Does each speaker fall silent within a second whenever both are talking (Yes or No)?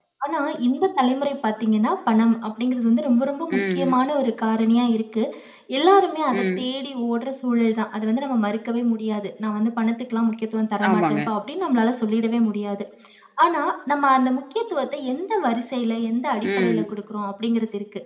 Yes